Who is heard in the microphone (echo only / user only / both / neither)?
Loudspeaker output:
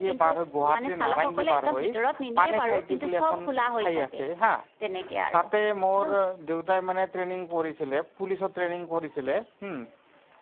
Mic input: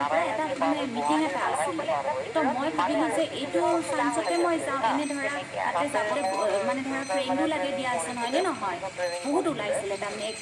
both